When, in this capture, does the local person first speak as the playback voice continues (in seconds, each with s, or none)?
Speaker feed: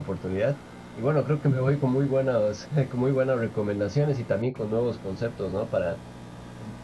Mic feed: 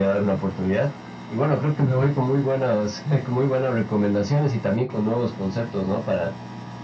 none